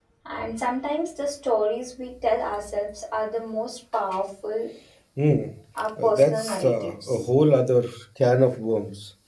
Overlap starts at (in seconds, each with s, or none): 6.0 s